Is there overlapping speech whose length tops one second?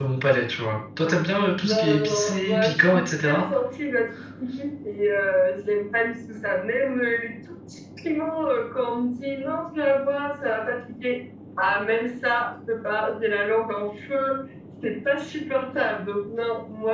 Yes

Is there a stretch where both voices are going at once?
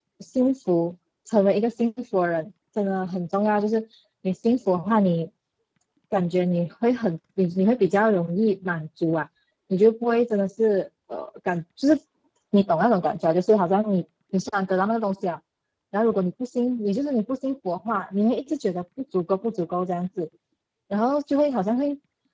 No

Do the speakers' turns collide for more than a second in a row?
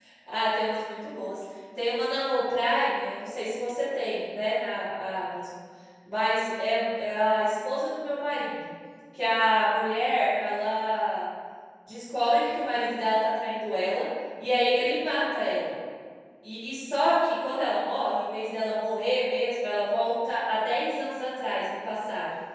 No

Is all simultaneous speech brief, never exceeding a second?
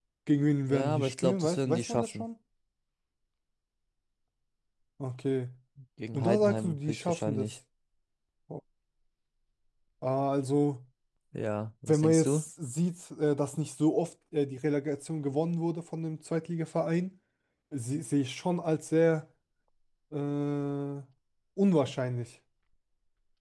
No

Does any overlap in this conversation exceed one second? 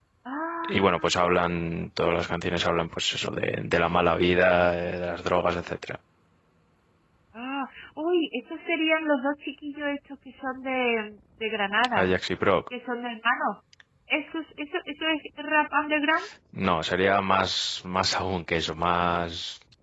No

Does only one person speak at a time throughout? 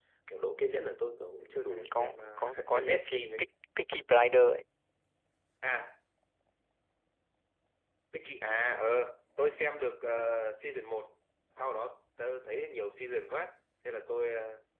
No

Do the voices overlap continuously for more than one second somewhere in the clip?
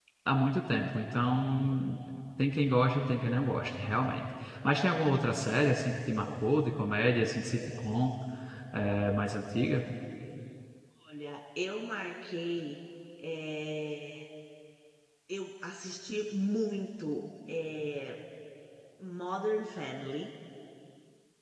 No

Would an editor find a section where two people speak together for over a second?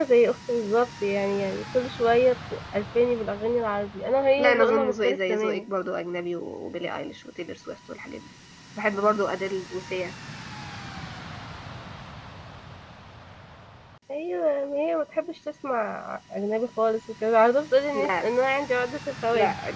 Yes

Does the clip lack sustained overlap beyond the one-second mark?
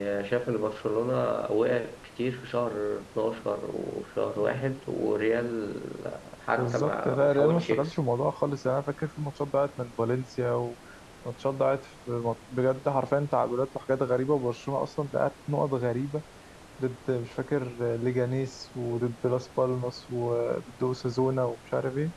No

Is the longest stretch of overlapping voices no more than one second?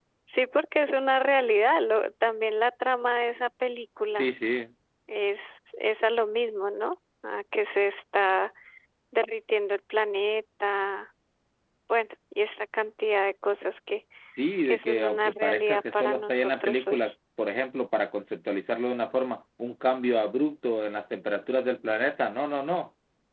No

